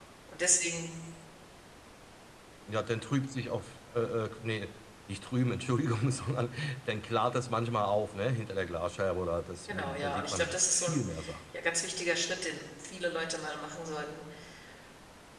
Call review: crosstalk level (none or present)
present